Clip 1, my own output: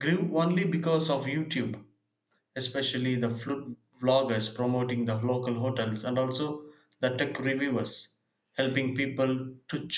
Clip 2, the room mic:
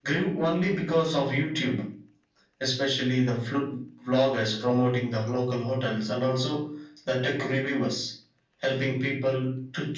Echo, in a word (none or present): present